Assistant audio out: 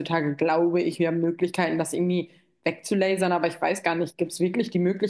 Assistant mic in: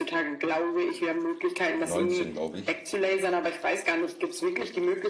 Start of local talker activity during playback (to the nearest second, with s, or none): 2 s